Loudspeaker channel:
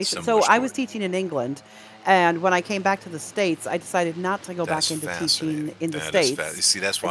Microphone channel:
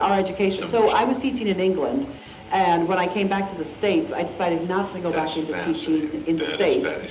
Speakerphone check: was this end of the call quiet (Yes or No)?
Yes